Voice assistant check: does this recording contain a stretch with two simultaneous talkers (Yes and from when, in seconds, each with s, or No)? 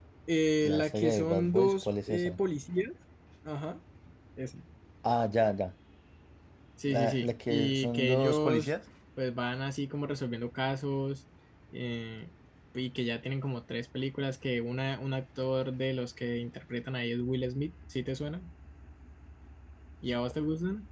Yes, from 0.6 s